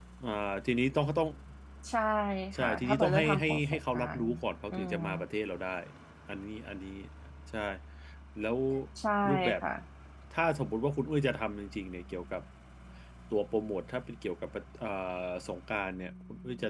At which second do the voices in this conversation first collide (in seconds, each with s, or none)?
2.6 s